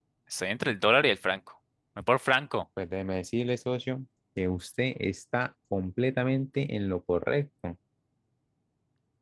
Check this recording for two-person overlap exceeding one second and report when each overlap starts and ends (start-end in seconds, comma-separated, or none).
none